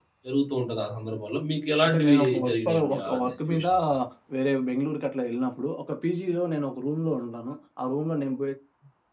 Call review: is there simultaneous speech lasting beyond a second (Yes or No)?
Yes